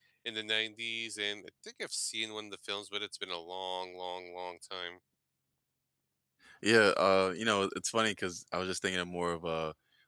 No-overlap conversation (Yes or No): Yes